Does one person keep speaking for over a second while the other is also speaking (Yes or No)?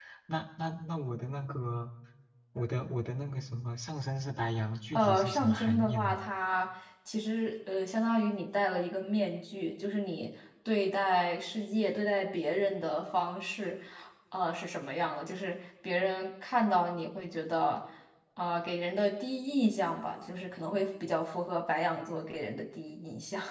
Yes